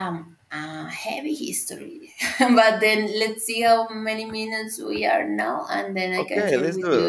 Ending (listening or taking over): taking over